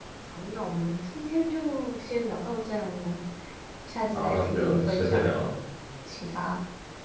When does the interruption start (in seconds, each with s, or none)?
4.1 s